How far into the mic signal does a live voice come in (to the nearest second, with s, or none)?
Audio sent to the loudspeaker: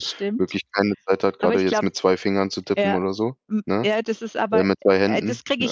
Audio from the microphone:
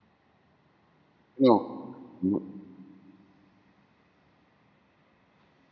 1 s